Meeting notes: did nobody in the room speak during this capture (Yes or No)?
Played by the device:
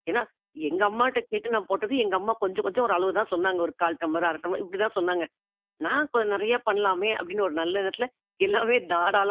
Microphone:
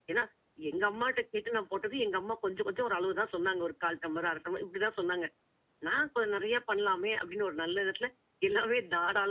Yes